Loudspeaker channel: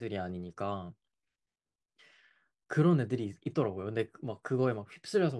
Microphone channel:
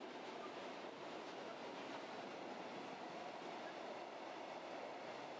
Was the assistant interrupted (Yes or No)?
No